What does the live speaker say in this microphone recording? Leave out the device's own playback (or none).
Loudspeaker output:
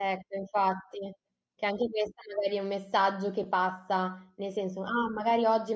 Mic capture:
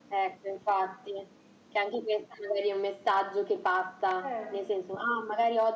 Certo.